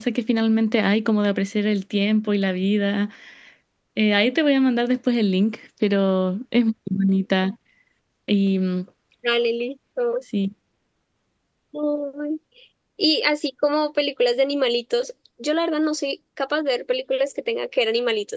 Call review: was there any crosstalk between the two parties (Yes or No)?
No